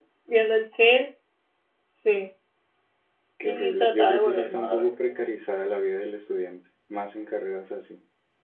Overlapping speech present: Yes, from 3.4 s

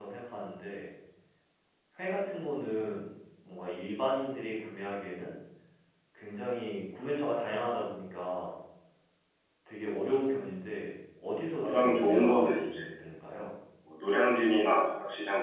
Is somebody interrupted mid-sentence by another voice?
Yes, from 11.6 s

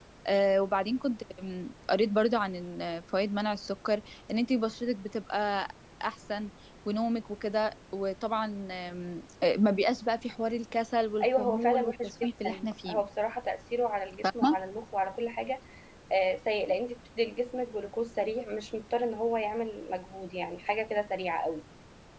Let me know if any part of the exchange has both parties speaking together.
Yes, from 11.2 s

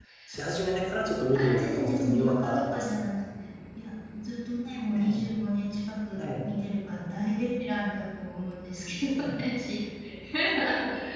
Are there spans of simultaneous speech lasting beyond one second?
Yes, from 1.3 s

